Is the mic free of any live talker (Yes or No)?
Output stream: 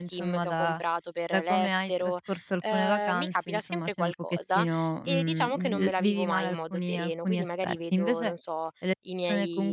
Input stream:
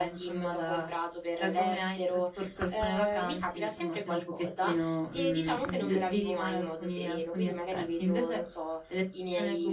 Yes